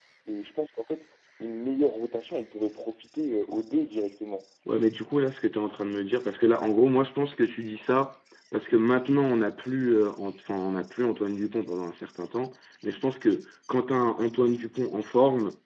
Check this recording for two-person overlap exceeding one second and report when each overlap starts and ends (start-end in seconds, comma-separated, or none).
none